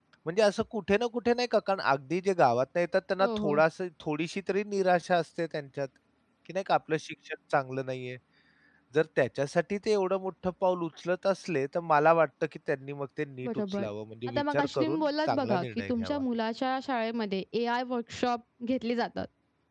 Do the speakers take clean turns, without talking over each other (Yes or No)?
No